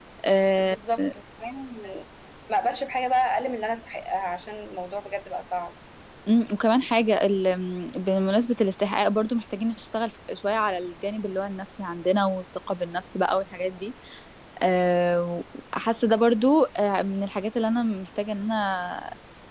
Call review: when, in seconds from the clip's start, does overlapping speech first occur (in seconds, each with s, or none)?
none